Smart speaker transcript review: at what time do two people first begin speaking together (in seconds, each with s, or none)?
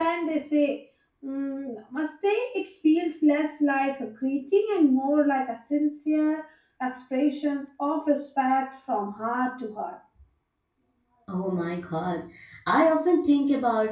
none